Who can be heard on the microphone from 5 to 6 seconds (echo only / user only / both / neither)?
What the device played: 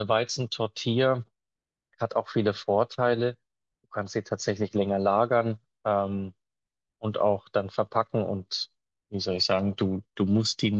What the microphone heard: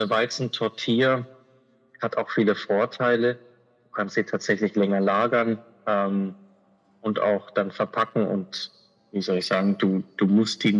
echo only